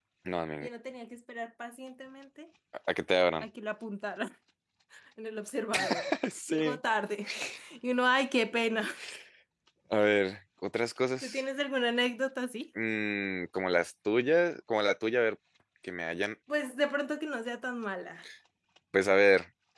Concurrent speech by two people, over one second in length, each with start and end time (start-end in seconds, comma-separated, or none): none